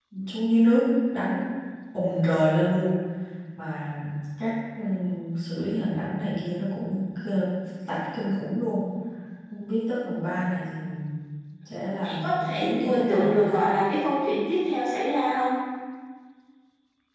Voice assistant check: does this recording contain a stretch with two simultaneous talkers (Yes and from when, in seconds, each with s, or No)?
Yes, from 12.0 s